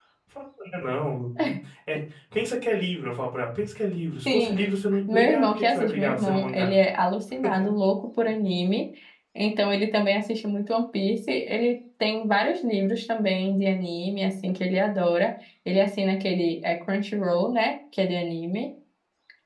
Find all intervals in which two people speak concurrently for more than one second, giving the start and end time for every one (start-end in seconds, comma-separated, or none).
5.1-6.7